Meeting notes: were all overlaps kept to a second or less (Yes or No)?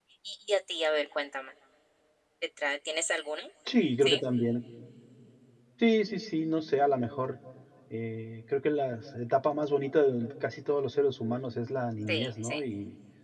Yes